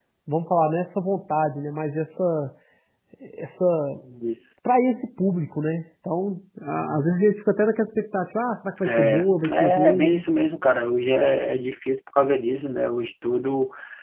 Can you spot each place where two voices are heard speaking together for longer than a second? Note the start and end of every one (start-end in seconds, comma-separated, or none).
8.8-10.2